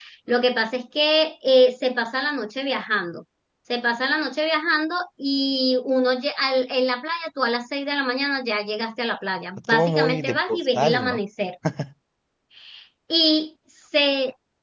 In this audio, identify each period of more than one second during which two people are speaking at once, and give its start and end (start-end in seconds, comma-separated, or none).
9.7-11.2